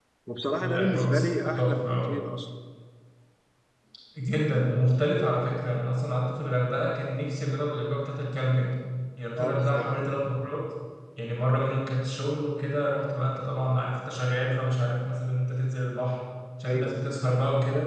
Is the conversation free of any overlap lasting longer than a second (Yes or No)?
No